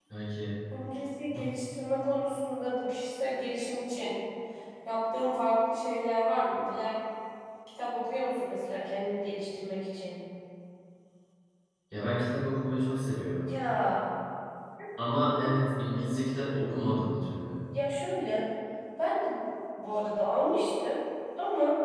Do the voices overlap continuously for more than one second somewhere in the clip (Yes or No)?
No